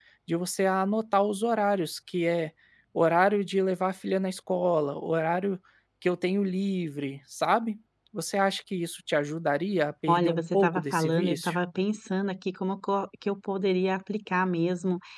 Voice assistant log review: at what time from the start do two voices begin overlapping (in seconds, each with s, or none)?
10.1 s